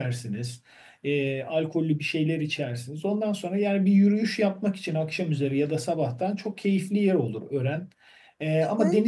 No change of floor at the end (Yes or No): Yes